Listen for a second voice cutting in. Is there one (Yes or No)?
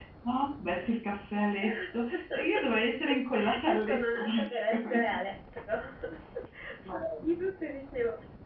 Yes